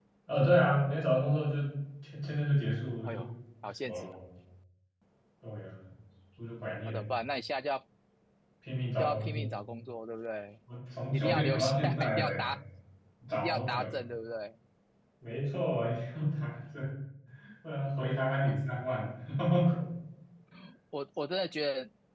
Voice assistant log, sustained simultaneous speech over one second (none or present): present